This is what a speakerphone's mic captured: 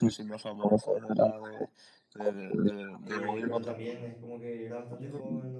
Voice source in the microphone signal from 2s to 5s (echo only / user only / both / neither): both